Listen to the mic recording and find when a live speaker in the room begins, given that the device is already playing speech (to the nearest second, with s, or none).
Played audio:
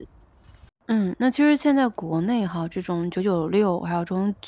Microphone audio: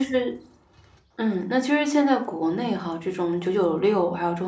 none